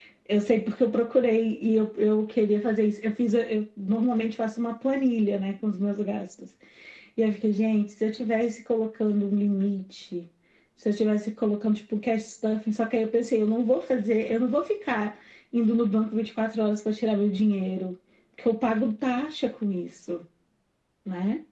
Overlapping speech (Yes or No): No